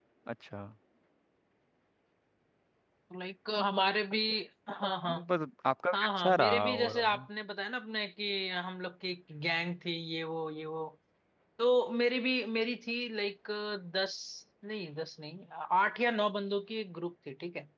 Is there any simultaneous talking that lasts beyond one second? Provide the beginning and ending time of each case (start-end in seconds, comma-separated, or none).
5.9-7.3